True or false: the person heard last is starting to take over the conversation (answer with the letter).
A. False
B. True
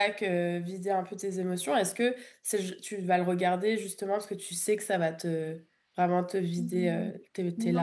B